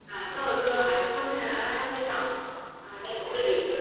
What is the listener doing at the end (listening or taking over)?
taking over